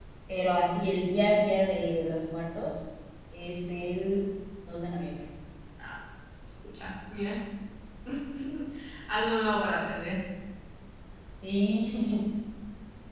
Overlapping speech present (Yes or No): No